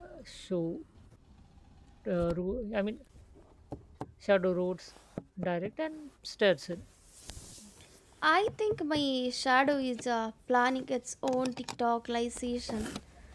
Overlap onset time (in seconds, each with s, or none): none